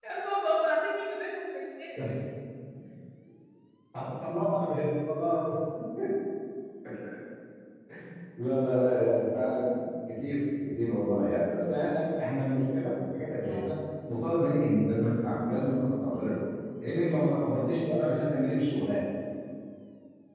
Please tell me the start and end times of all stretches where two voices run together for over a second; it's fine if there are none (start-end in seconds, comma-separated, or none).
none